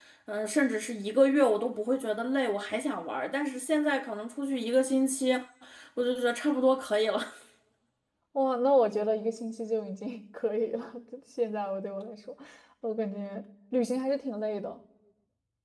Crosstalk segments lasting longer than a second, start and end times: none

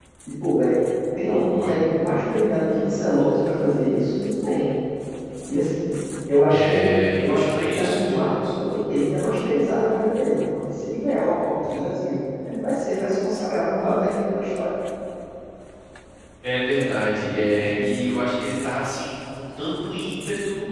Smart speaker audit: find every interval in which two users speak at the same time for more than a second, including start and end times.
6.5-8.5

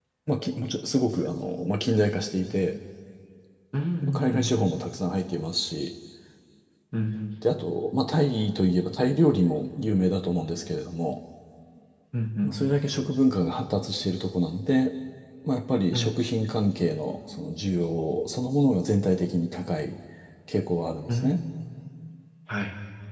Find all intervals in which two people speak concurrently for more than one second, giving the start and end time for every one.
none

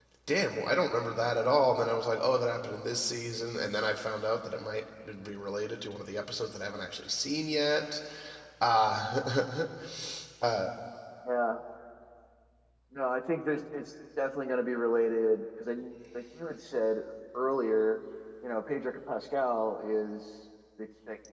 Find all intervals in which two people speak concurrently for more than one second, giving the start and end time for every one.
none

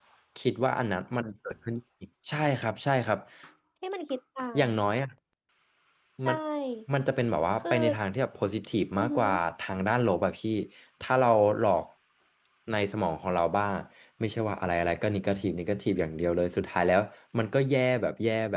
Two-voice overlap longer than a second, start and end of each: none

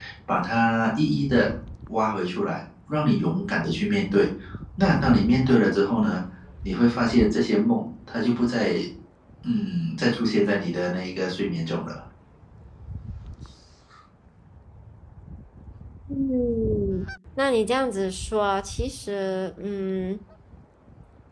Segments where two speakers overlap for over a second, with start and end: none

